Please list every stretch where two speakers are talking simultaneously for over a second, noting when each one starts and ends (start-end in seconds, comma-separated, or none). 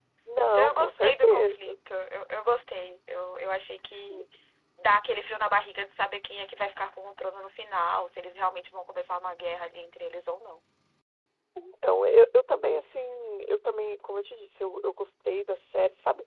0.6-1.8